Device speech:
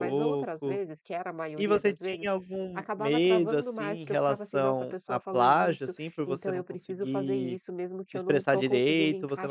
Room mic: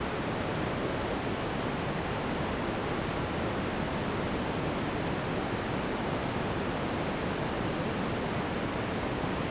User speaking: No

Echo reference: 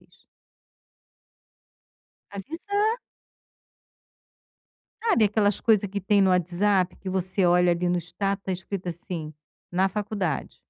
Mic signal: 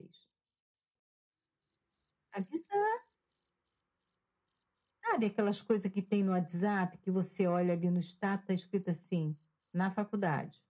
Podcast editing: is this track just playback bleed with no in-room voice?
Yes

